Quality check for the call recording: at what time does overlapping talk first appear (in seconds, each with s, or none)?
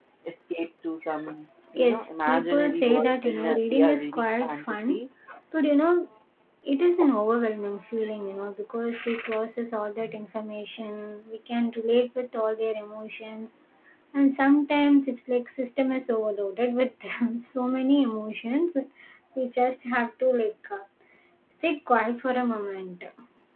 1.8 s